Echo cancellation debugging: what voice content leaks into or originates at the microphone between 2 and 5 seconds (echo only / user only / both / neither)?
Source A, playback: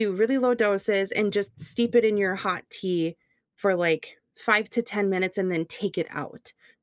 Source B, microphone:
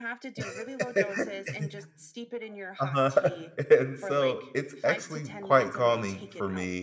both